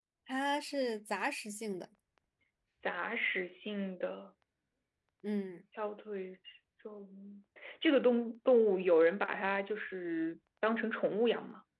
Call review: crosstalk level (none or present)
none